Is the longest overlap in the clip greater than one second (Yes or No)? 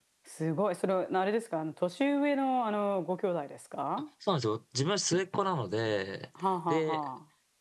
No